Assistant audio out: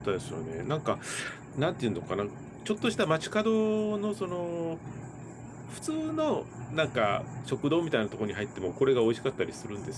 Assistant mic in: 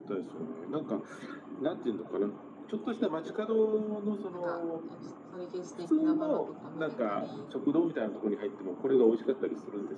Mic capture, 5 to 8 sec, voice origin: both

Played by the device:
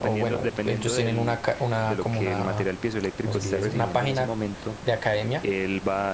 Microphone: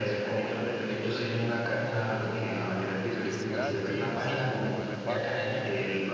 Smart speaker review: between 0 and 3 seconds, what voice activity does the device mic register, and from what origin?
echo only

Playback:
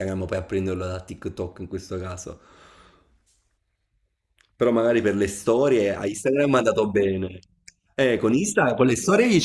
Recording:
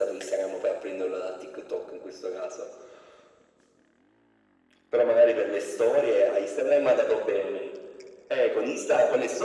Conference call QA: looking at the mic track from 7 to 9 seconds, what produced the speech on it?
echo only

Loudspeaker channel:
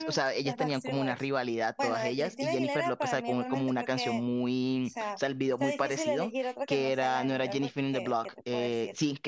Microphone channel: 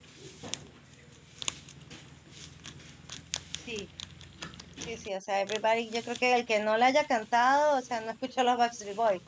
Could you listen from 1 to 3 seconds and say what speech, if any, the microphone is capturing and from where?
neither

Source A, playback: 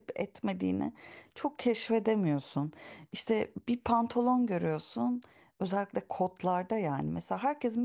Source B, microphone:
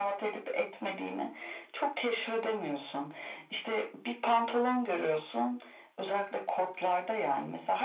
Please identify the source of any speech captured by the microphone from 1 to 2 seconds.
echo only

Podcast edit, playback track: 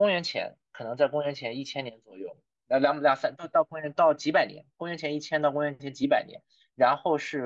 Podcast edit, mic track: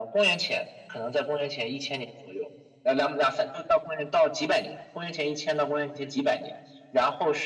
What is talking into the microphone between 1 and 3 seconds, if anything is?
echo only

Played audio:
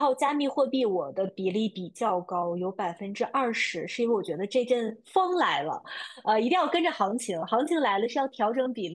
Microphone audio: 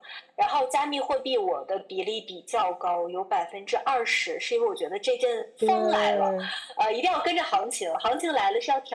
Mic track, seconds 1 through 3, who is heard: echo only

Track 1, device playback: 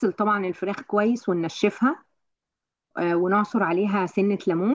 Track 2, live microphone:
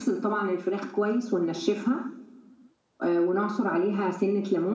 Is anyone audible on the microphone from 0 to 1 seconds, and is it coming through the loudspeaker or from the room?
echo only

